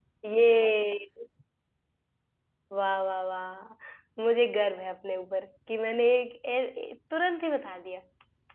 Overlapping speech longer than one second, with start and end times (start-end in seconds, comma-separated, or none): none